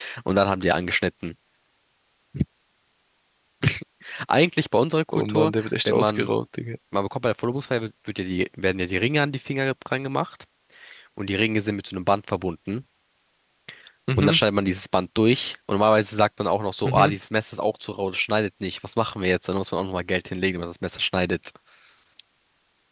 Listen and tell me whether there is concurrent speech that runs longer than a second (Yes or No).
Yes